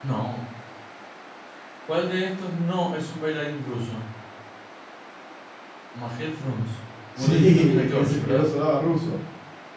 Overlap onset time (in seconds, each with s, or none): 7.2 s